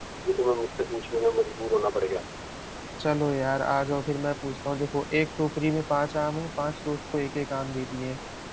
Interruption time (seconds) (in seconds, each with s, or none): none